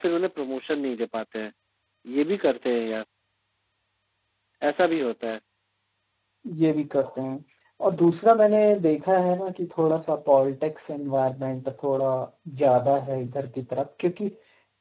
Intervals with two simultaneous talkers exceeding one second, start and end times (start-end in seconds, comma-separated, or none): none